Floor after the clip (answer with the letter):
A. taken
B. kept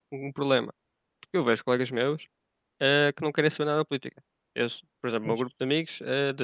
B